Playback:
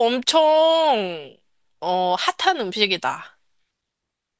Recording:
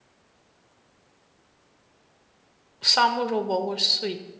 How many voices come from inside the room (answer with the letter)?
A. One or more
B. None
A